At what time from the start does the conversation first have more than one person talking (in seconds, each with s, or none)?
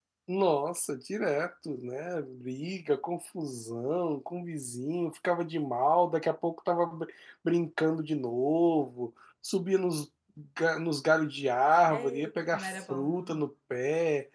11.9 s